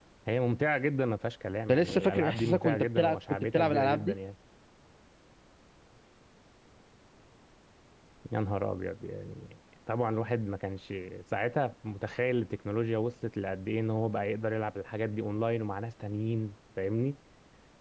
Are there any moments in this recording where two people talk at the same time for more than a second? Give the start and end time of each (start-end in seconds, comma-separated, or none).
1.7-4.1